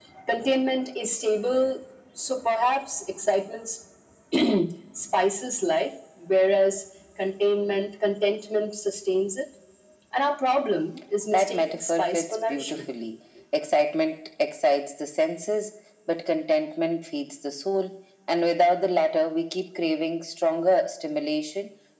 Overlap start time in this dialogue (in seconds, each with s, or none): 11.3 s